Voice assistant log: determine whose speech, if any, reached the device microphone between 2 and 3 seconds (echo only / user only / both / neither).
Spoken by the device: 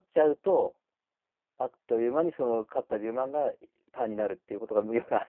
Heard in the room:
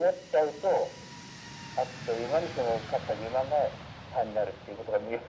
echo only